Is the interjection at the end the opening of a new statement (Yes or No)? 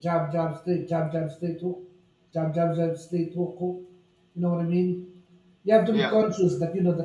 No